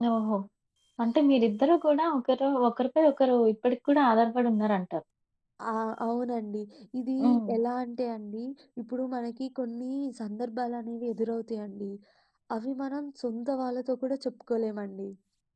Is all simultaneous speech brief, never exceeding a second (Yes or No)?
Yes